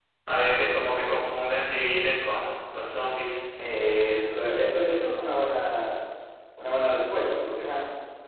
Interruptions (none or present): none